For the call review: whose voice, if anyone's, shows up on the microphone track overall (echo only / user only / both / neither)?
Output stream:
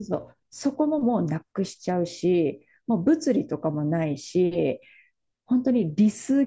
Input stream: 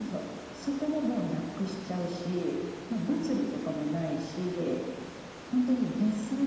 echo only